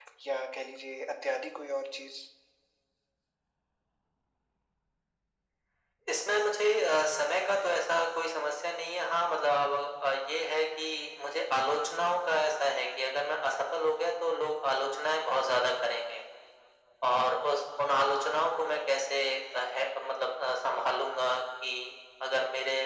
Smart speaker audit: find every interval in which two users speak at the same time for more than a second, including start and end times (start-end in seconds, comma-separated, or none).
none